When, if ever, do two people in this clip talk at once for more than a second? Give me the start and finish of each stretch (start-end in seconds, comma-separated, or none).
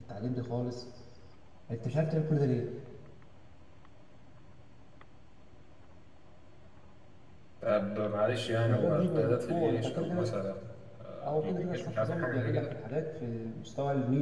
8.7-10.3, 11.2-12.7